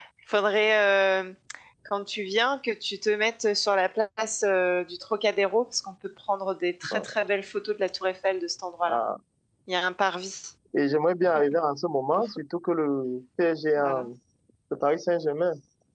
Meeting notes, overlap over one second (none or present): none